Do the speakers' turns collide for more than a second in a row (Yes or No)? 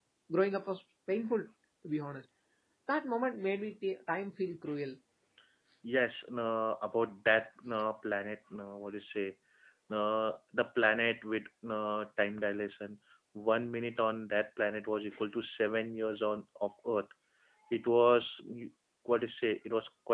No